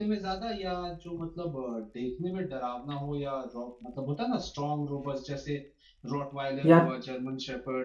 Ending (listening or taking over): listening